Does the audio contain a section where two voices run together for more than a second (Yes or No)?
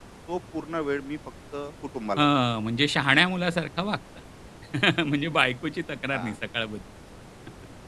No